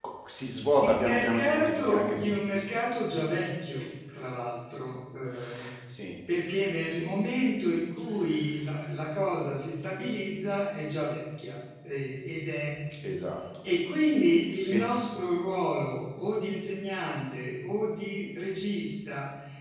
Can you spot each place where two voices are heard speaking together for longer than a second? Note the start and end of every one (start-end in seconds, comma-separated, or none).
0.8-2.3